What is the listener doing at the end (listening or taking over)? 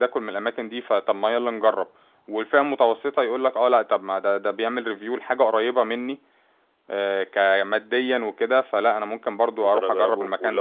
taking over